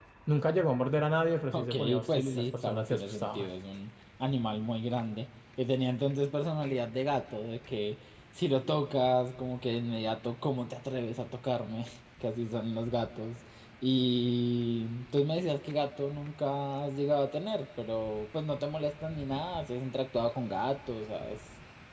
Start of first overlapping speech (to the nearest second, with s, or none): 2 s